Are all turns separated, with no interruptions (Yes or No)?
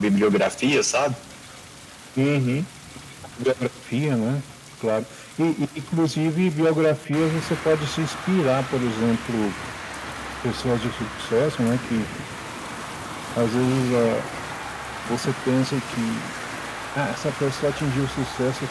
Yes